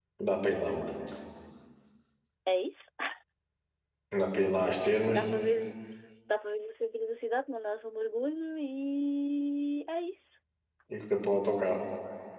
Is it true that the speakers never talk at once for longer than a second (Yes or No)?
Yes